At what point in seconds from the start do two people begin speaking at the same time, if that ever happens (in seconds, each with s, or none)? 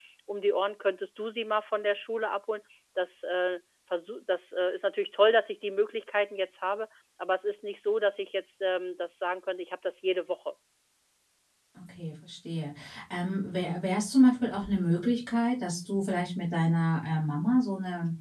none